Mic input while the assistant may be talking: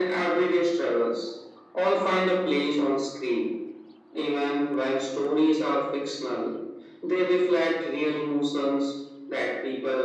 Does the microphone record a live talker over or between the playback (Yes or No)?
No